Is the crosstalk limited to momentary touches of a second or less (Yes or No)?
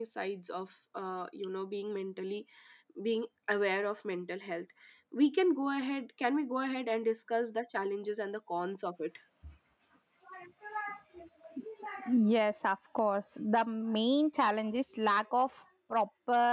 Yes